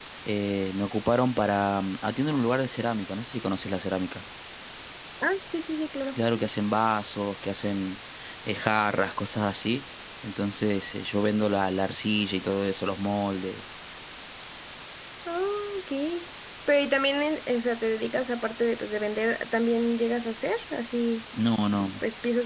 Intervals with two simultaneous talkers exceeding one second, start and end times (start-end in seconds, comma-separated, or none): none